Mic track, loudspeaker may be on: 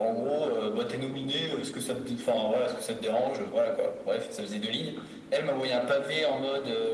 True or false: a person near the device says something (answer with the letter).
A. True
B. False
B